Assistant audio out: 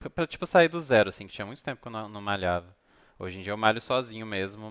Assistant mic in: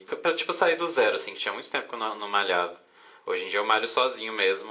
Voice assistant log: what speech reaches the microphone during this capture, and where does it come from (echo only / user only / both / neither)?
echo only